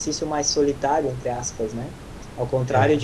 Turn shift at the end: No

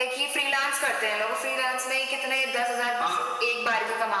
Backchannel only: Yes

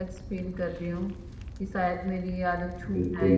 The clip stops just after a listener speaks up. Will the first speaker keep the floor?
No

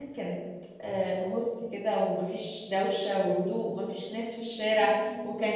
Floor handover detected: No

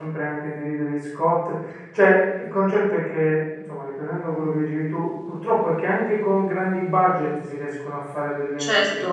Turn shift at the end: Yes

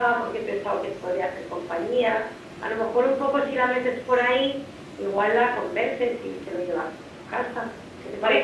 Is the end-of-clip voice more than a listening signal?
Yes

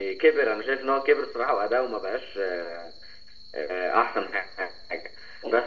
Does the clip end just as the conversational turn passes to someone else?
No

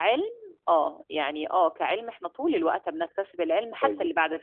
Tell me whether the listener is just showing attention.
No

